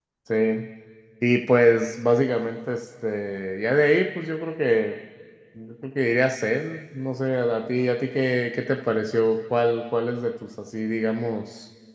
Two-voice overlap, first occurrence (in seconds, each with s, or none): none